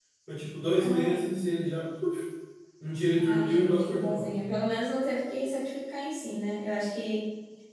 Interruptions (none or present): present